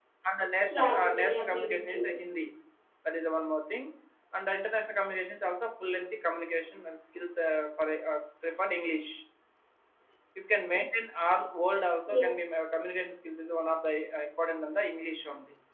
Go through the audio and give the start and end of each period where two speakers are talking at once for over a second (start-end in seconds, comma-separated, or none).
0.7-2.1